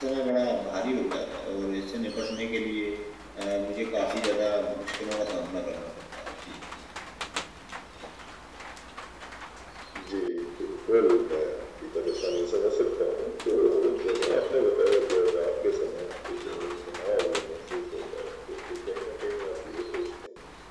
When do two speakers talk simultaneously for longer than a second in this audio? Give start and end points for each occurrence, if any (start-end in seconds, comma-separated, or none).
none